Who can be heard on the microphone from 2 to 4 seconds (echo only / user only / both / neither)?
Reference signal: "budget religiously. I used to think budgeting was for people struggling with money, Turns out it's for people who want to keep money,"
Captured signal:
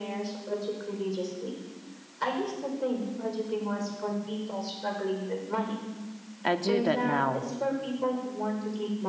echo only